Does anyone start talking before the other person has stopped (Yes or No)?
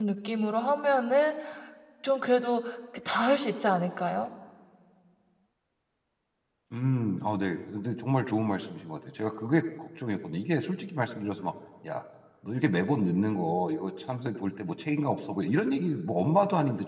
No